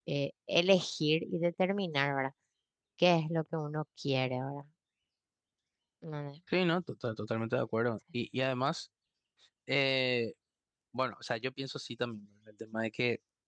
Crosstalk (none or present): none